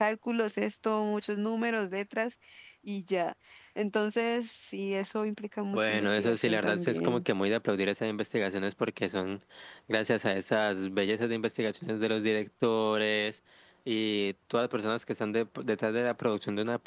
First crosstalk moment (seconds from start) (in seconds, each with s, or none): 5.7 s